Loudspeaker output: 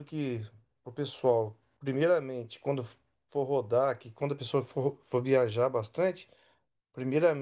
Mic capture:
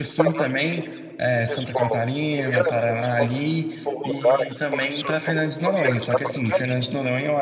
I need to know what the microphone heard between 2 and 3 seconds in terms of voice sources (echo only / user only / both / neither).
both